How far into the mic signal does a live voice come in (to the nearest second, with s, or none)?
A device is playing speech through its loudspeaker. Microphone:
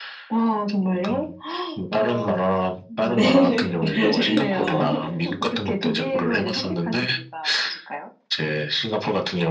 3 s